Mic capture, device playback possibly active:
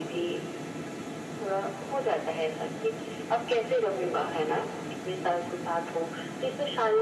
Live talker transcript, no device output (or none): none